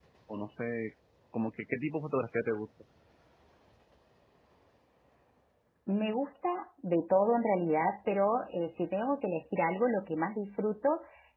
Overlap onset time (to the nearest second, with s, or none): none